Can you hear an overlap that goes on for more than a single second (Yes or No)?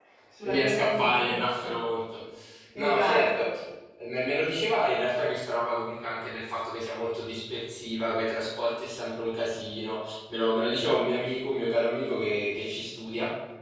Yes